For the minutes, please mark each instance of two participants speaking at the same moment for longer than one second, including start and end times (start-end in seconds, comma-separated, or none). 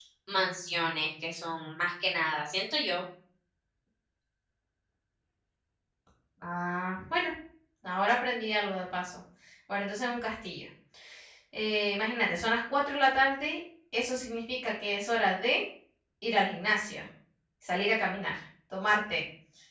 none